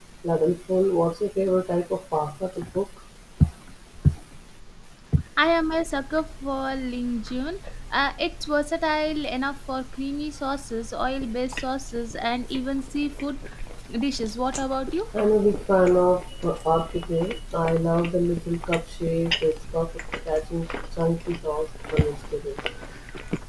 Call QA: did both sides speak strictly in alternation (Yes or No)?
Yes